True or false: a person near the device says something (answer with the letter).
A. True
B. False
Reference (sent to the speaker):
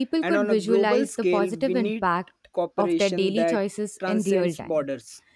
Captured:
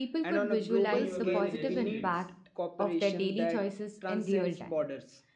A